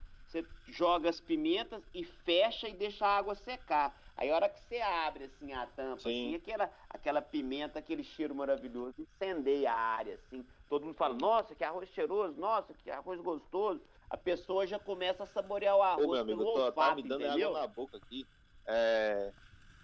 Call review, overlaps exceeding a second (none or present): present